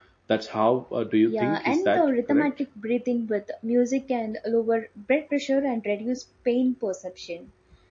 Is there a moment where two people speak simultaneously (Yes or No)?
Yes